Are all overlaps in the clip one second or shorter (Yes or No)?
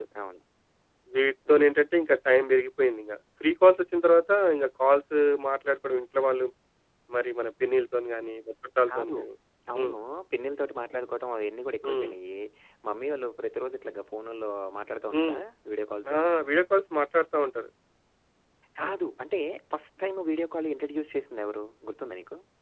Yes